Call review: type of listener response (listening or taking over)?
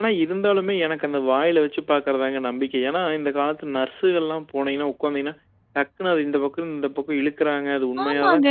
taking over